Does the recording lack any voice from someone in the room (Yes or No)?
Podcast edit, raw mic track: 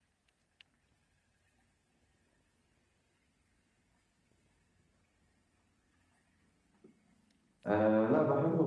No